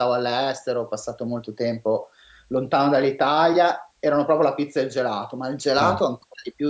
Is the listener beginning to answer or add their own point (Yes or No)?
No